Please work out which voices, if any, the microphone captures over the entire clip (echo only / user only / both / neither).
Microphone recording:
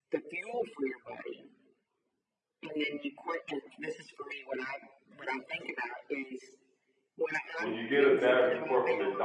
both